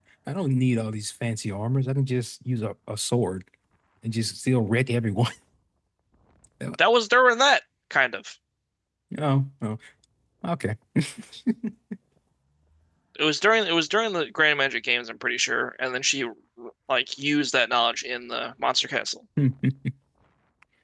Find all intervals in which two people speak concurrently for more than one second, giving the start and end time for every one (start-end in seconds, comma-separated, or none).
none